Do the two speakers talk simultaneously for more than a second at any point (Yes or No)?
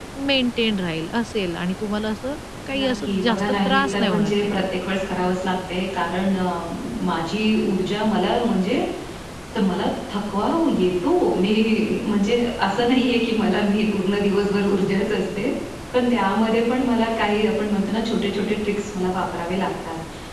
Yes